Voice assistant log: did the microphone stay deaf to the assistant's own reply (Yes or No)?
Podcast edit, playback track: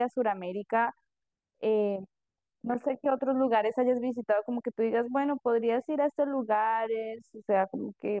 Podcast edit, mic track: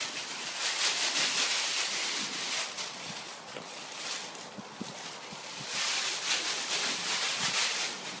Yes